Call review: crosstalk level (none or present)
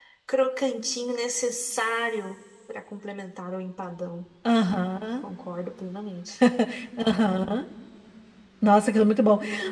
none